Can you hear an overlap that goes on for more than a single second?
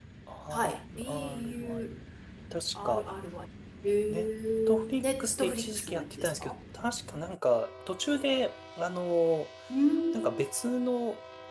Yes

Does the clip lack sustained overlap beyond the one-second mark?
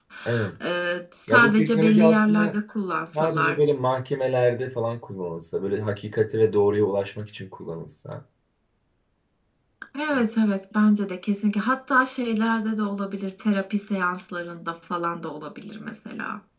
No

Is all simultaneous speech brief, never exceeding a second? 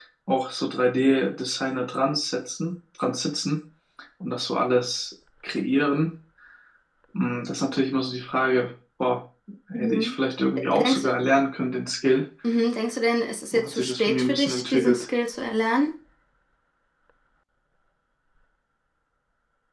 No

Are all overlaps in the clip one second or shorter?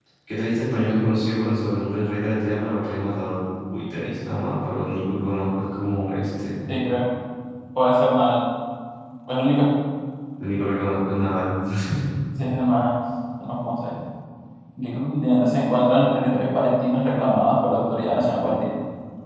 Yes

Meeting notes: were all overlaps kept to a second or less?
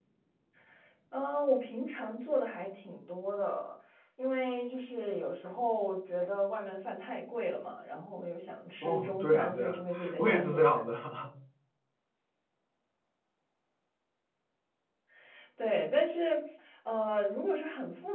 No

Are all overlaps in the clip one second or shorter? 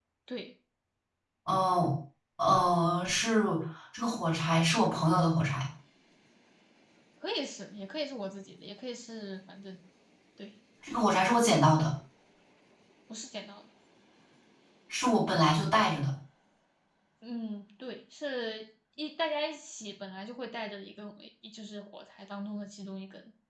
Yes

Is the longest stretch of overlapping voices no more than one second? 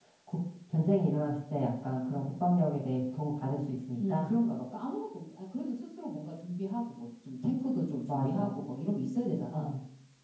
Yes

